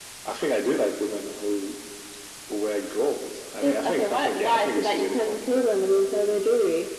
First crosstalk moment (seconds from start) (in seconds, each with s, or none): 3.6 s